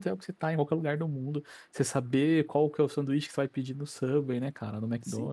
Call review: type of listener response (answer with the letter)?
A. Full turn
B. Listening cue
A